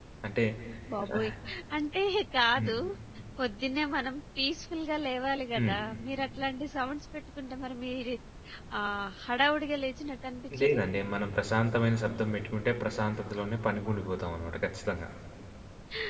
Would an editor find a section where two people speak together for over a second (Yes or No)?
No